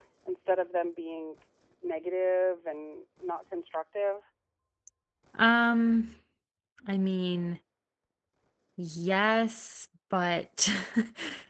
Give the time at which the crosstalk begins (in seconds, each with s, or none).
none